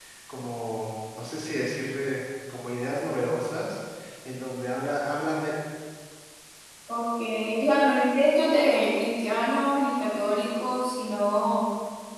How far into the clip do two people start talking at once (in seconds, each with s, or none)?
none